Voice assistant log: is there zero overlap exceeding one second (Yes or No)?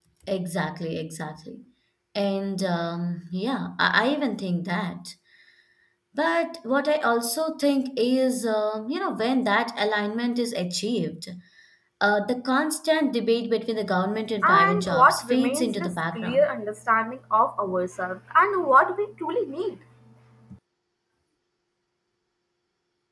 No